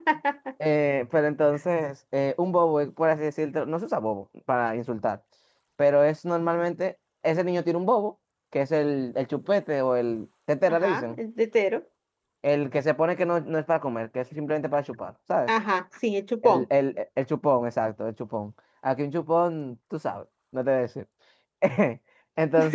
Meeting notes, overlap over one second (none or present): none